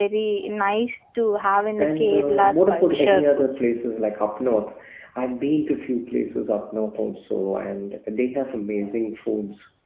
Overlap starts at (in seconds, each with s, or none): 1.8 s